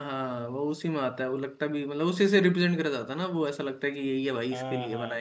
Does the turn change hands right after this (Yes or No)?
Yes